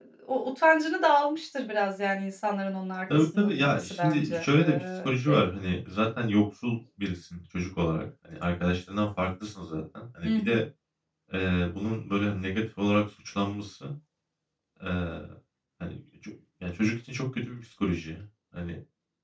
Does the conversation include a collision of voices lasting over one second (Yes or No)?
Yes